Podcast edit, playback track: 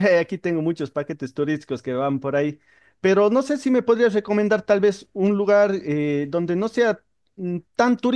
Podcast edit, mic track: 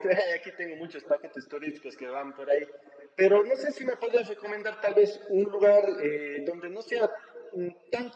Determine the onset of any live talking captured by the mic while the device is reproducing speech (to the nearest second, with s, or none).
none